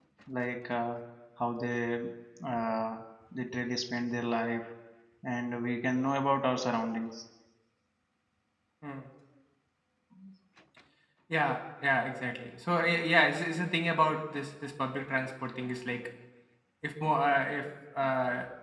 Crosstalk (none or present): none